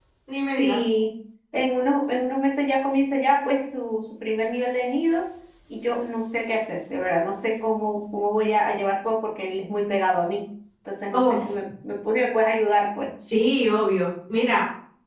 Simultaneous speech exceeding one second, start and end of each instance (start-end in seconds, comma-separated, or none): none